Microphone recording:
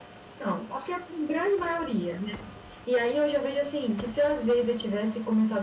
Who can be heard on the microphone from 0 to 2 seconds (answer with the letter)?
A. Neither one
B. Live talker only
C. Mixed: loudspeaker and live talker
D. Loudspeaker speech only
D